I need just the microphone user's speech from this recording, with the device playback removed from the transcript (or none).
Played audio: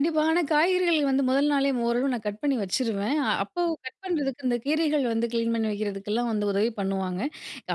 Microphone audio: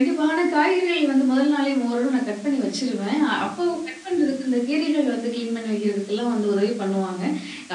none